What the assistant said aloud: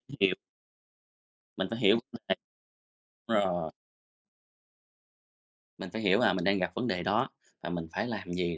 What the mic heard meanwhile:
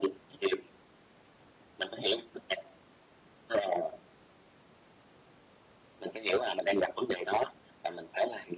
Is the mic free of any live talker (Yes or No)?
Yes